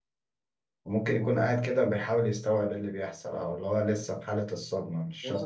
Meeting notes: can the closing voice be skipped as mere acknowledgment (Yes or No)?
No